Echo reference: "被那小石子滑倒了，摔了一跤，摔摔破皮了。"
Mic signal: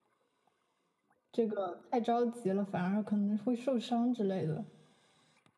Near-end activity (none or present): present